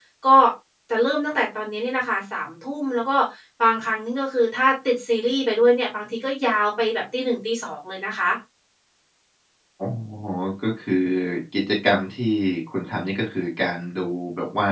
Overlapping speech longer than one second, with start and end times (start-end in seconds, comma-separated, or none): none